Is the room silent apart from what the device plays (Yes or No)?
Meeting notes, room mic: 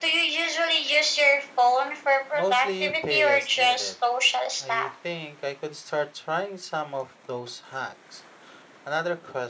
No